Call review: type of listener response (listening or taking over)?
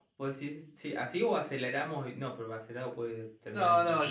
taking over